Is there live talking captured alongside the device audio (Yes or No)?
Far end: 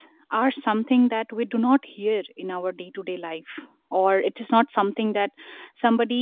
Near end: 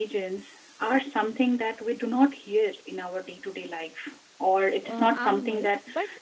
Yes